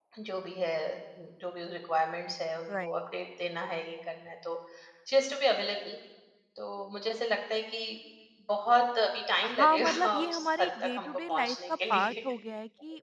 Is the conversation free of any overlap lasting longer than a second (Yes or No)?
No